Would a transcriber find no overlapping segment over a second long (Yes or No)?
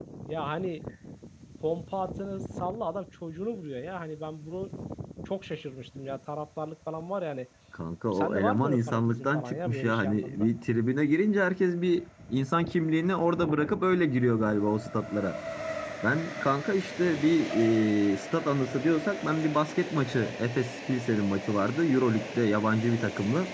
No